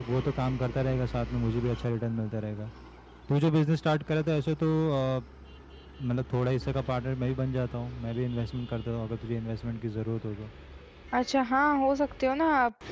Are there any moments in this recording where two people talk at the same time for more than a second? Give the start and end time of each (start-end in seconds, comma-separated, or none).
none